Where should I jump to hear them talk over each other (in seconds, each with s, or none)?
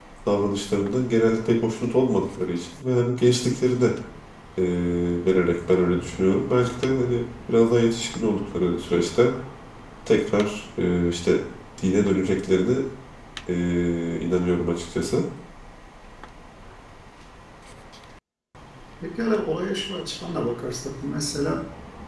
none